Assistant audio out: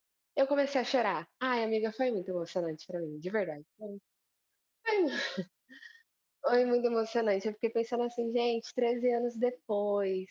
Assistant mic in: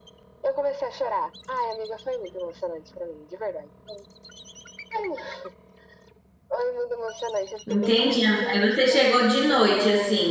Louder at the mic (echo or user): user